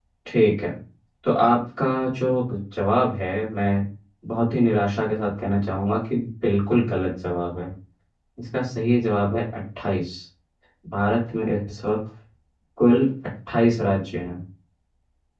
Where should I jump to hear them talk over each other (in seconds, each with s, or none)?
none